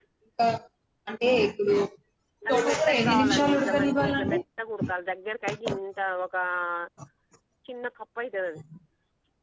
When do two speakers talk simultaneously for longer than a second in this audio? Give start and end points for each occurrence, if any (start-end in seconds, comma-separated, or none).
2.5-4.4